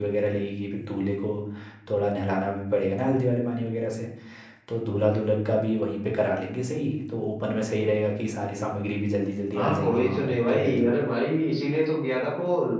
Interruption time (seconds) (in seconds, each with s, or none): 9.5 s